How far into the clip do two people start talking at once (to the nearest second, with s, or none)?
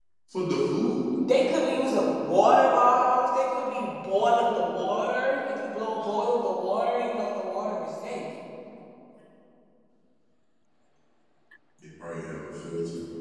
none